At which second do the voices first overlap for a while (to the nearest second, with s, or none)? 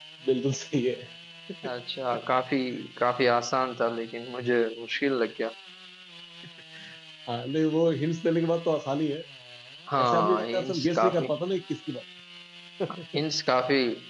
10 s